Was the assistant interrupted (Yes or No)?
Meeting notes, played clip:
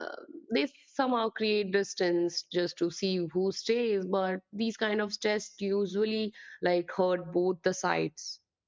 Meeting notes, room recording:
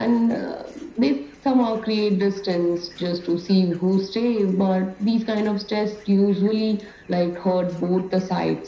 No